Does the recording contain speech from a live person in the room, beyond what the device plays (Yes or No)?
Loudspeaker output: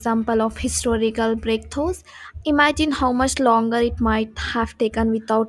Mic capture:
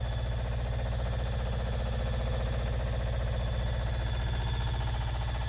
No